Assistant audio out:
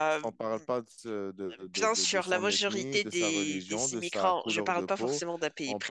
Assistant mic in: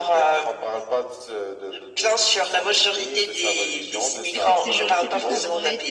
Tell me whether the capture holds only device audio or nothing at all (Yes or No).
No